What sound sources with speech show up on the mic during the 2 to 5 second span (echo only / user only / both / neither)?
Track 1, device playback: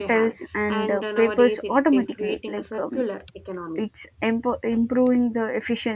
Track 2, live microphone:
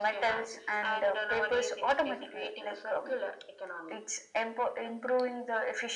echo only